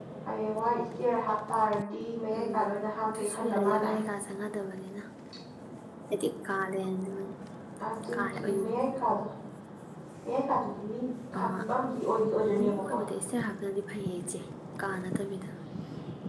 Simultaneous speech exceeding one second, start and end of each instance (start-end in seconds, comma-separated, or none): 2.3-4.0